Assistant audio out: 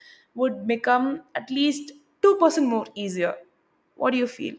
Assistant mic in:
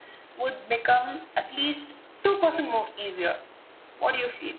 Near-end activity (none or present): none